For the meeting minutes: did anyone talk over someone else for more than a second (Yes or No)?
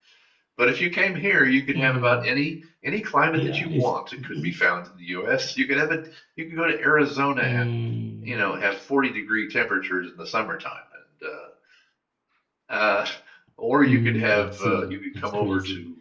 Yes